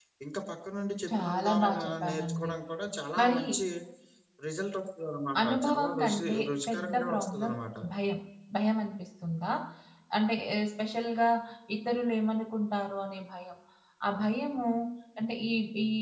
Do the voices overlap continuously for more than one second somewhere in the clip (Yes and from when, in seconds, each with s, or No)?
Yes, from 1.1 s